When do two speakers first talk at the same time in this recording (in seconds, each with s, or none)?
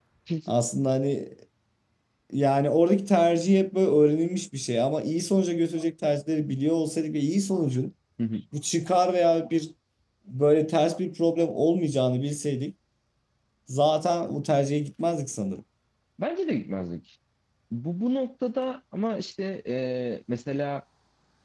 none